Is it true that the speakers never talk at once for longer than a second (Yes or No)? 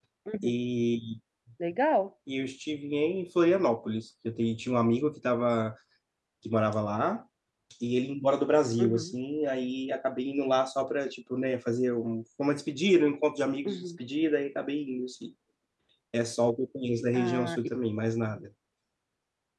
Yes